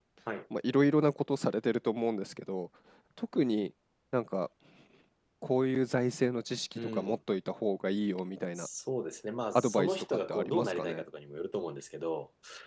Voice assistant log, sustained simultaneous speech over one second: present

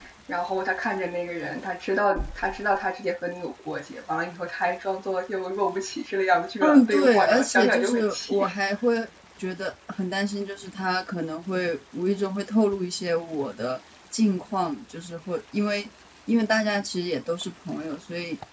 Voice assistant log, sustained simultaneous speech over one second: present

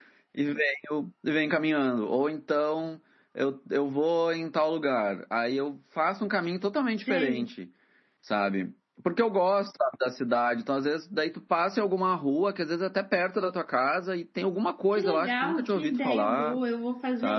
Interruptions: present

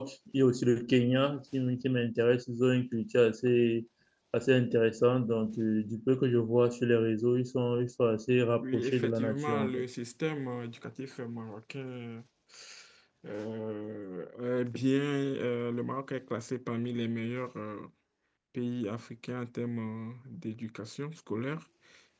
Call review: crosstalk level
present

